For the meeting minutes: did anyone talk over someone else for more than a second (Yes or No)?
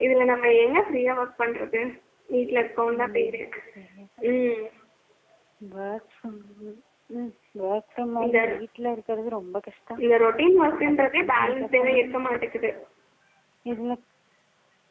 Yes